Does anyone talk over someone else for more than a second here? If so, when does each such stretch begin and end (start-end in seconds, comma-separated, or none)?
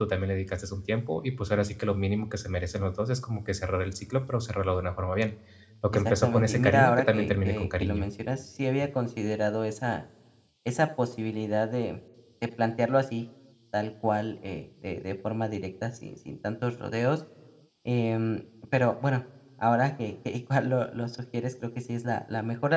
6.2-8.1